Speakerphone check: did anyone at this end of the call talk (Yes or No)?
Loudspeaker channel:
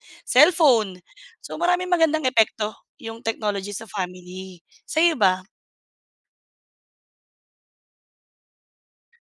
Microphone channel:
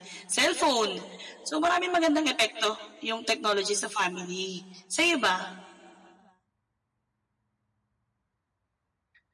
No